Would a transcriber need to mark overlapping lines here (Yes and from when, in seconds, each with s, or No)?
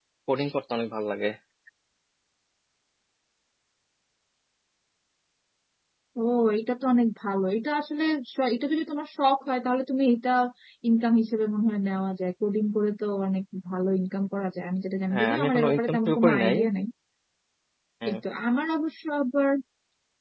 Yes, from 15.1 s